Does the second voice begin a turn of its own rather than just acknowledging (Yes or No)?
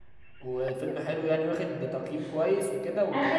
Yes